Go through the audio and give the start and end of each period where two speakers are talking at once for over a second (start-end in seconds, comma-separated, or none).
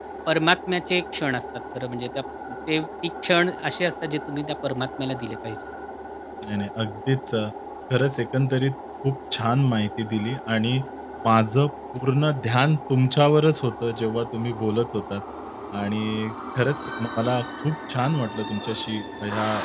none